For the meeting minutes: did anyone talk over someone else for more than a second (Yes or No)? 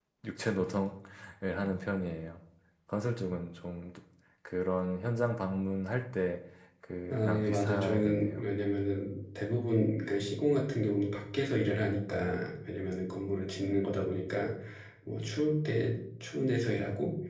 Yes